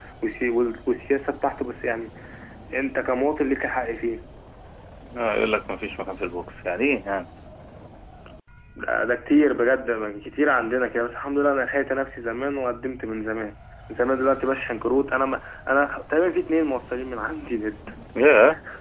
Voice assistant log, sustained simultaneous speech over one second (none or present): none